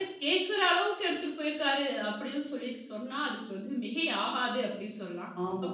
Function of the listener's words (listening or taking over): listening